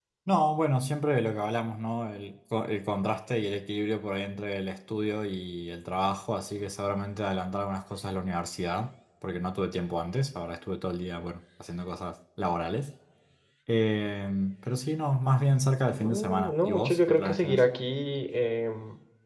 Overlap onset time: 16 s

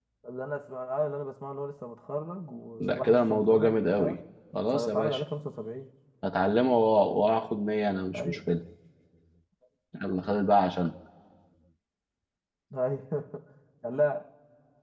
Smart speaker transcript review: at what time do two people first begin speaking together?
3 s

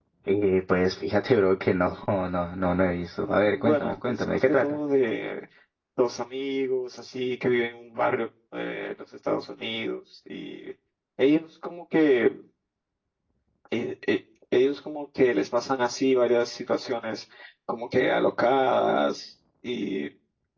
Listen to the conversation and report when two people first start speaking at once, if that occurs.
3 s

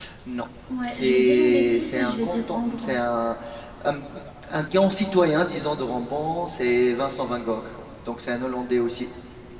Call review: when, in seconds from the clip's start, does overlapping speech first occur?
1 s

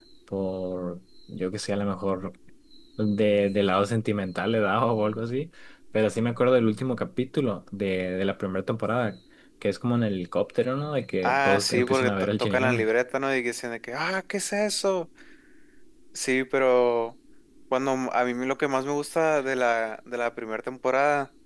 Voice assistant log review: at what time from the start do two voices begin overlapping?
11 s

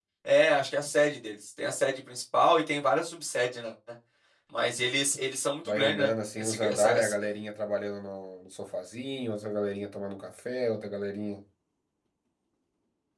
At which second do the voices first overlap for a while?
6 s

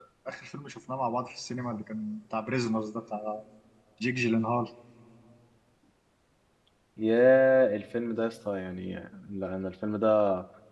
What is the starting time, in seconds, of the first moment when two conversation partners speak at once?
none

